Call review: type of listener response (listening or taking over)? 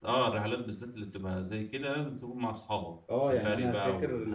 taking over